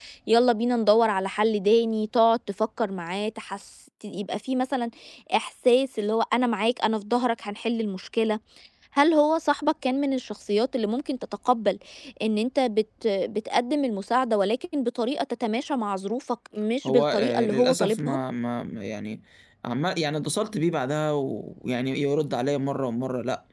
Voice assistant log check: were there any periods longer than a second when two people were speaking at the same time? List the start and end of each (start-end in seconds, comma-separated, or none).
16.9-18.2